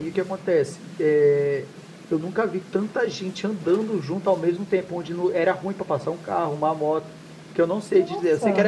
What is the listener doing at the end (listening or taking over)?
listening